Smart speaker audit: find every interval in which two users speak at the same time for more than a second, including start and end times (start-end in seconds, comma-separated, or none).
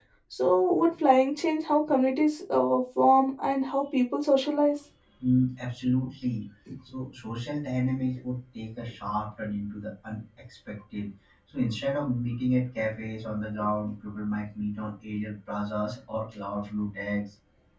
none